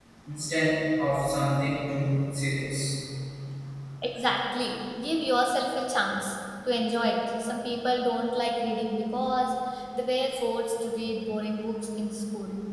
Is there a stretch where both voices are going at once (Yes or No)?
No